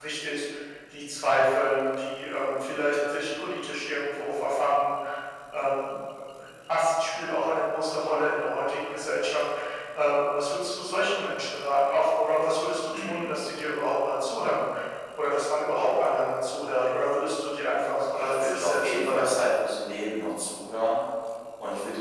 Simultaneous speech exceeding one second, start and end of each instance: 18.0-19.5

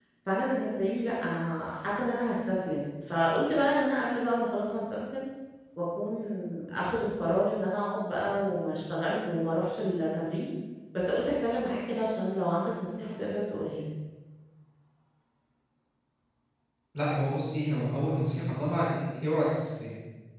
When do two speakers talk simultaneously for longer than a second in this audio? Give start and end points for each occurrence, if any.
none

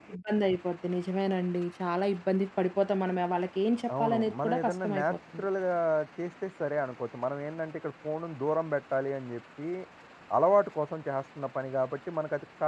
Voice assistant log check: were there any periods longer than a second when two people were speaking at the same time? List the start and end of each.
4.0-5.5

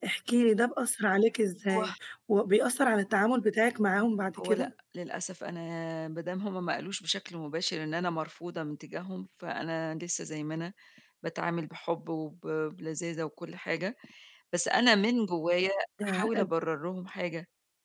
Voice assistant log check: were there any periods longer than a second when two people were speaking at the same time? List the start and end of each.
none

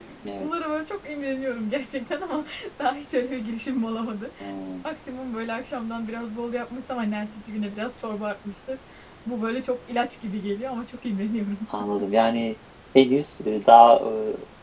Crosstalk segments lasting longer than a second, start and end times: none

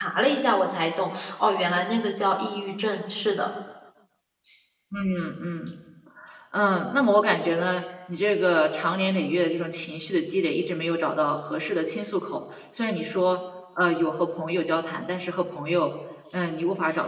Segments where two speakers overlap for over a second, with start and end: none

